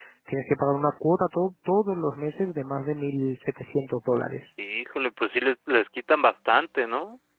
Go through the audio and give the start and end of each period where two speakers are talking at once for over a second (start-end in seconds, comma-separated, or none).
none